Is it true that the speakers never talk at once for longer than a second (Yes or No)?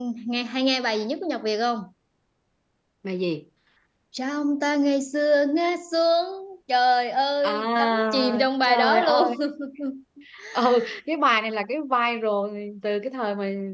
No